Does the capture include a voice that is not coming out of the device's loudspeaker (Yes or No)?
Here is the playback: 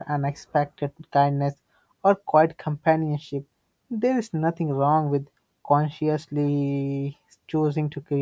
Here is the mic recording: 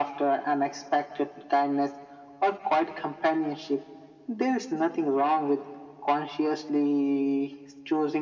No